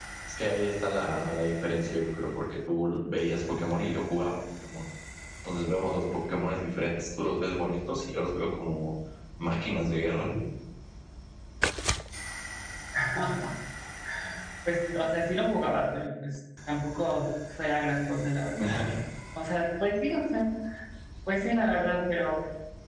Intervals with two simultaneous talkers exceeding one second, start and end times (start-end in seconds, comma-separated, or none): none